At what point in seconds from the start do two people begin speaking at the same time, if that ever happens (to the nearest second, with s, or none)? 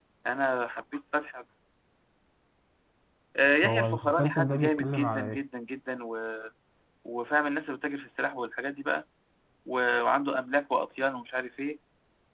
4 s